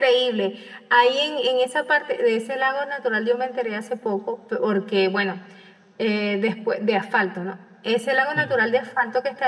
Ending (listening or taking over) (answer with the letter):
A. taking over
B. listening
B